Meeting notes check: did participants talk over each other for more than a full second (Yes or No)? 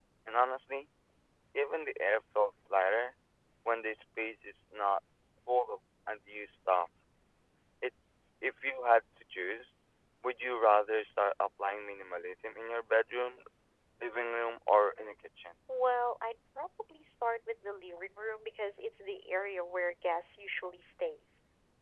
No